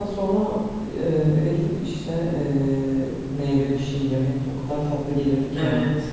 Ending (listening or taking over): taking over